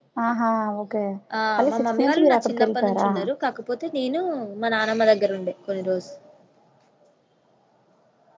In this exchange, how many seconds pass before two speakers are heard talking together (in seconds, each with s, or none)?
1.6 s